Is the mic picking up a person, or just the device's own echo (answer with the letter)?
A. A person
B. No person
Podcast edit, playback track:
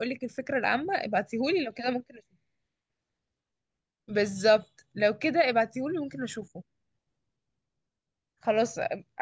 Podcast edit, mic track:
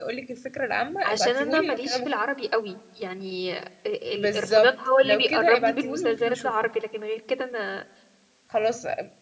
A